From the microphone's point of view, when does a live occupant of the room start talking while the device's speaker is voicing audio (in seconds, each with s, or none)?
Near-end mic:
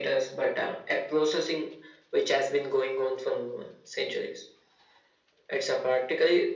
none